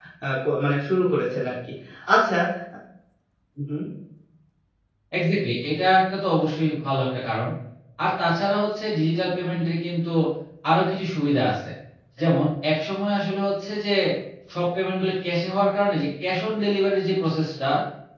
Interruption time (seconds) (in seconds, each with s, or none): none